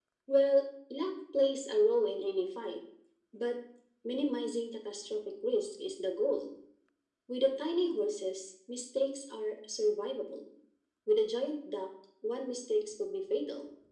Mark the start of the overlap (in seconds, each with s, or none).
none